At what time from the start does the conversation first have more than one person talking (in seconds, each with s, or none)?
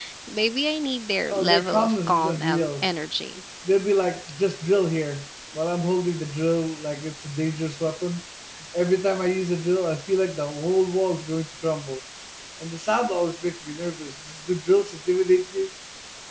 1.3 s